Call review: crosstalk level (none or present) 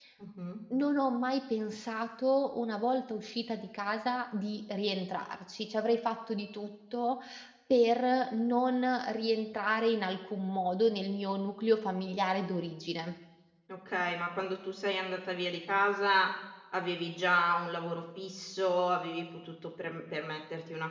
none